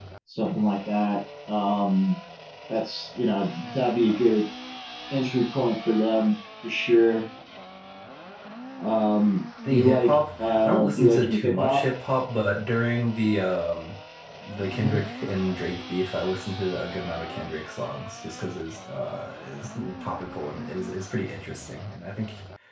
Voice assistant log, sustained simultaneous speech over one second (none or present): present